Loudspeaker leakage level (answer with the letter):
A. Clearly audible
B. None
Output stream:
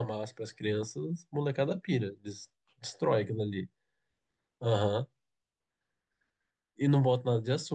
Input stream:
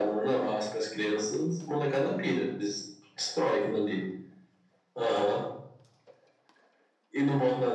A